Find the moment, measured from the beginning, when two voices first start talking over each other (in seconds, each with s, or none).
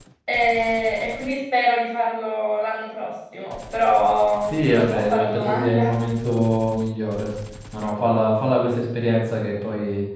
4.5 s